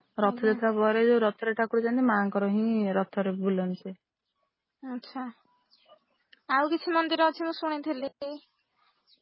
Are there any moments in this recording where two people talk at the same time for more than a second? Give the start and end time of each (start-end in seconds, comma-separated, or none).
none